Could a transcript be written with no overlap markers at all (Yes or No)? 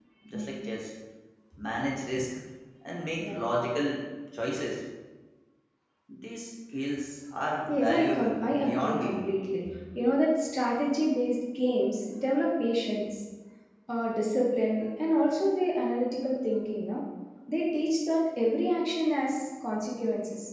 No